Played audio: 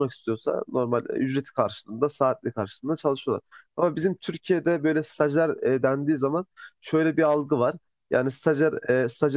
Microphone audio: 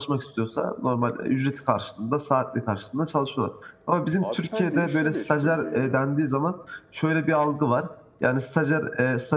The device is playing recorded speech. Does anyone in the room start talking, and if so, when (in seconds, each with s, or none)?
4.2 s